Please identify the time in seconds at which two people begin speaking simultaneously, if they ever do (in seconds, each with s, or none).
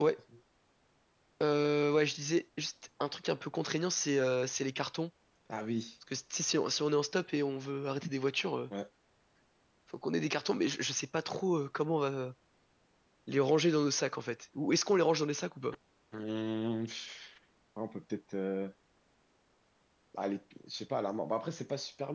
none